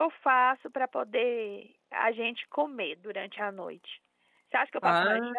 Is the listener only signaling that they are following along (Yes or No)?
Yes